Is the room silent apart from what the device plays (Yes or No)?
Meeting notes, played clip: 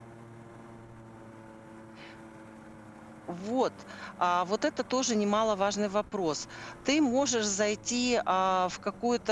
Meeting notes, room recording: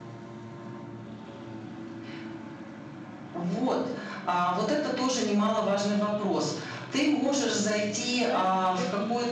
No